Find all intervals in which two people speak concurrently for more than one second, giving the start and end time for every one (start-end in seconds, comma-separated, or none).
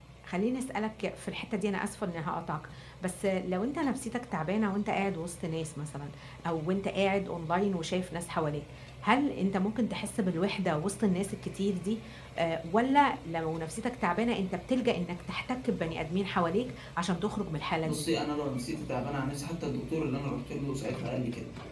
none